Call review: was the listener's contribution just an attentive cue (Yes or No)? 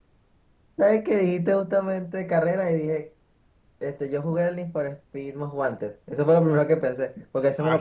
Yes